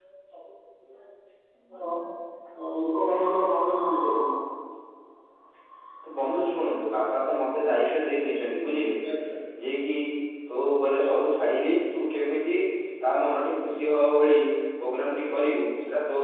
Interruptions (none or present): none